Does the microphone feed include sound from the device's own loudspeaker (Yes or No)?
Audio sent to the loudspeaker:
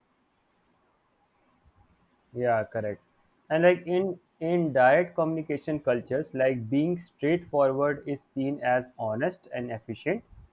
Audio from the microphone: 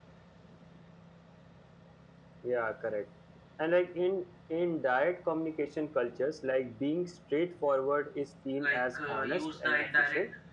Yes